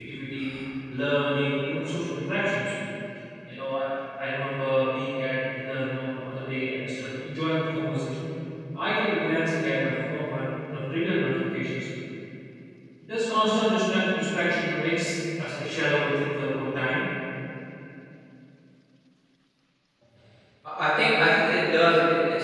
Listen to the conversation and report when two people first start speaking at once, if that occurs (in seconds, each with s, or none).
none